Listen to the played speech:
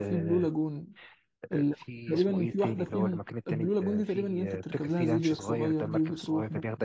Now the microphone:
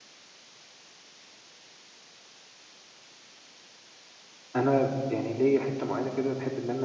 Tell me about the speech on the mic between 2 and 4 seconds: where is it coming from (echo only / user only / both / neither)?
neither